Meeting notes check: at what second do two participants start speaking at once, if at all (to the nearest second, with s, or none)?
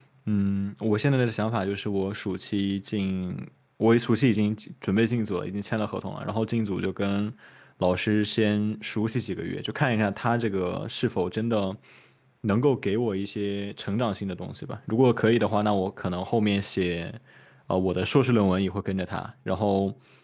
none